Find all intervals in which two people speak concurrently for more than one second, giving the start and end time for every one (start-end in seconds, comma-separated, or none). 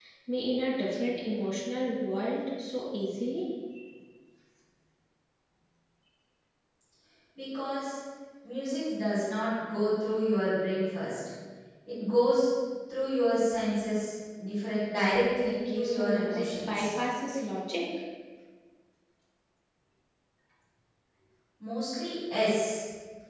15.4-16.9